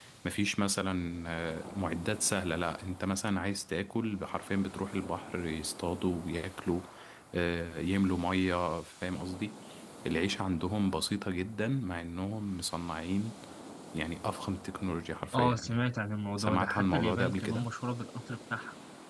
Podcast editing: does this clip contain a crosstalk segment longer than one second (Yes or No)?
Yes